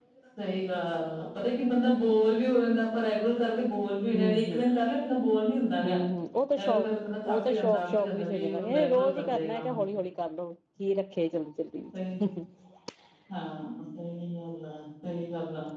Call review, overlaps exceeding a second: present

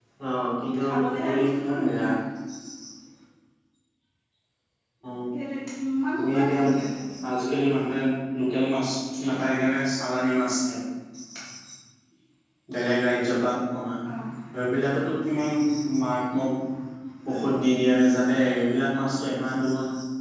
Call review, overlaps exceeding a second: present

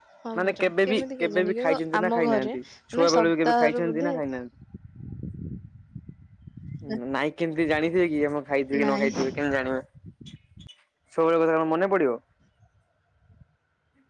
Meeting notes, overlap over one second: present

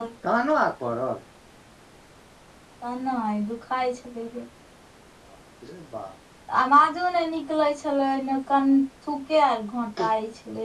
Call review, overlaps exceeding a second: none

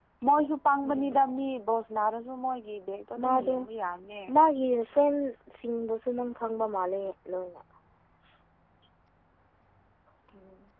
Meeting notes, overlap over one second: none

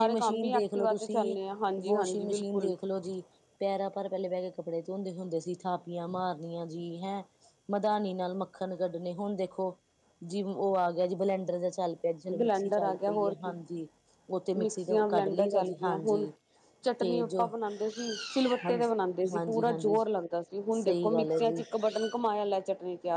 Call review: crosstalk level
present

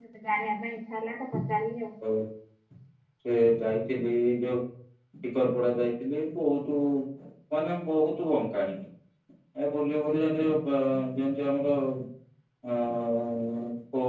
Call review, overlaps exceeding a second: none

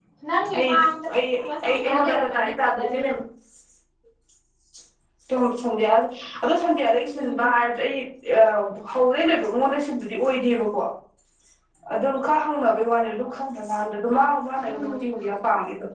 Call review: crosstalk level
present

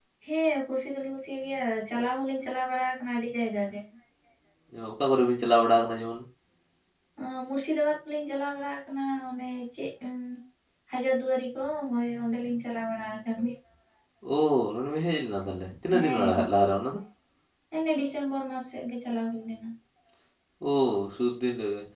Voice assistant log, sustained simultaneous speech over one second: none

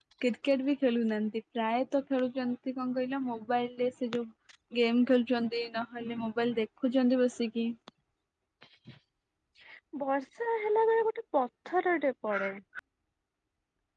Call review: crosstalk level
none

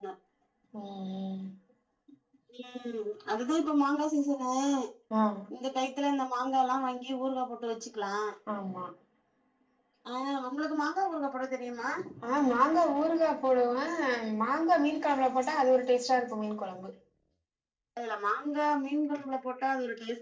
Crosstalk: none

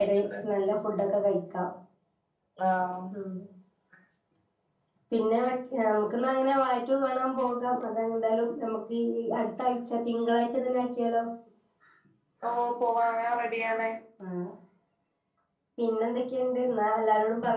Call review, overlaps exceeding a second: none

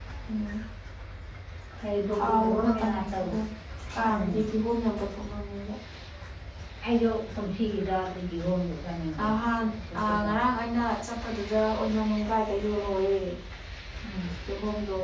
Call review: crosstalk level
present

